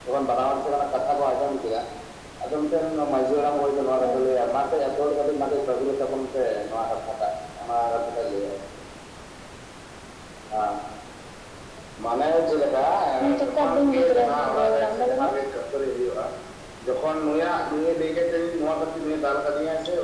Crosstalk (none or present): present